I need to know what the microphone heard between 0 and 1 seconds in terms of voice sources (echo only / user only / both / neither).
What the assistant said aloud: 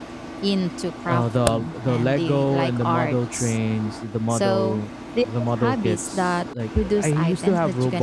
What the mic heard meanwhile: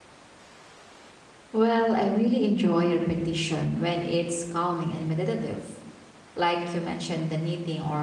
neither